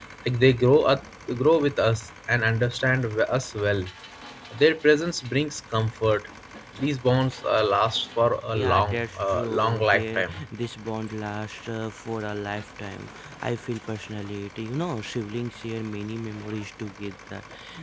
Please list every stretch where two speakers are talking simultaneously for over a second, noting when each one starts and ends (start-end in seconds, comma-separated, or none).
8.5-10.4